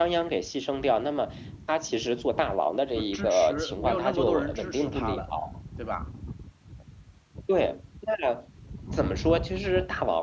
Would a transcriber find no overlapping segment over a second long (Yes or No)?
No